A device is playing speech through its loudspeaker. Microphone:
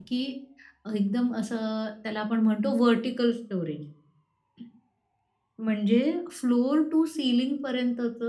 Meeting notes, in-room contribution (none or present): present